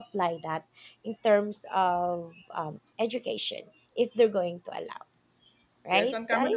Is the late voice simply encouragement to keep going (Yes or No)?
No